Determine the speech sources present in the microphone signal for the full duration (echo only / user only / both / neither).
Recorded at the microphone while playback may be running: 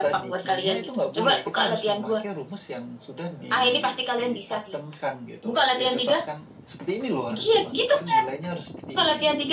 echo only